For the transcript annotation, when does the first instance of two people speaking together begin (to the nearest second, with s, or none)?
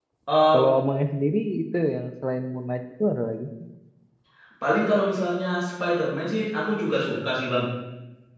none